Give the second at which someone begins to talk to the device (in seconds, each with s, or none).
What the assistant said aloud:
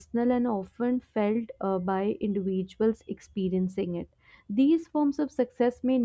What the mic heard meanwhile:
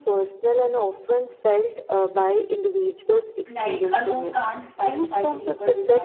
3.5 s